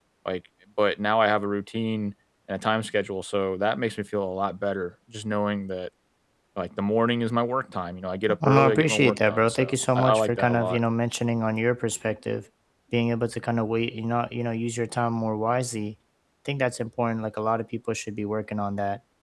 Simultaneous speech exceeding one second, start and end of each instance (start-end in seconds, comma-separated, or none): 8.4-10.8